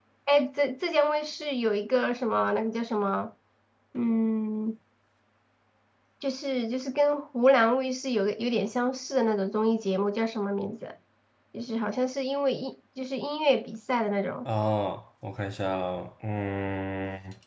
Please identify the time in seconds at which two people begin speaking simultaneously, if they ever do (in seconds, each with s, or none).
none